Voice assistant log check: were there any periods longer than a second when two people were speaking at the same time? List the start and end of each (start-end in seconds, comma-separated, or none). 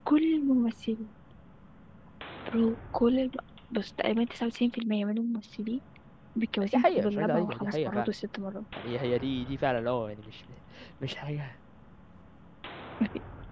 6.7-8.1